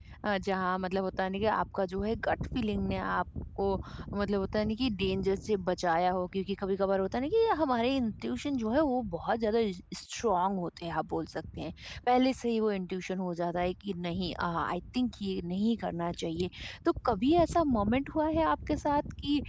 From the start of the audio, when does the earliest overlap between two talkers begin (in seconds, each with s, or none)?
none